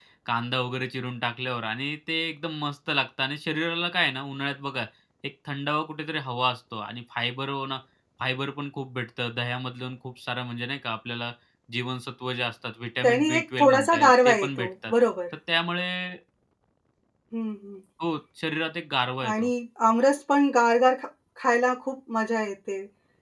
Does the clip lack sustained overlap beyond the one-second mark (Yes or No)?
No